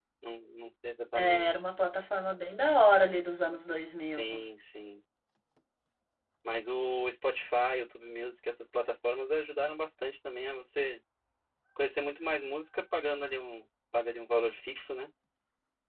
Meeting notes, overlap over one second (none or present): none